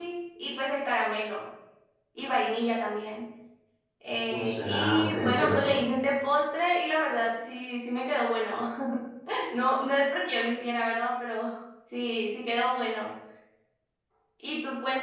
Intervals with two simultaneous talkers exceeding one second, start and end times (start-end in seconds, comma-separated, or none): 4.3-5.8